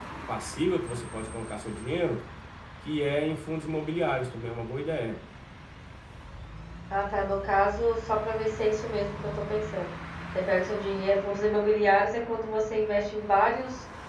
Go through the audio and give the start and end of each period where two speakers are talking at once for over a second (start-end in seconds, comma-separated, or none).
none